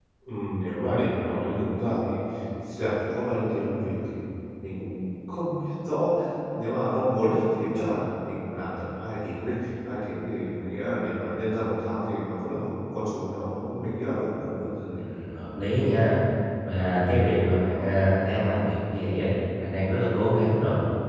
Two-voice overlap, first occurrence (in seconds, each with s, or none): none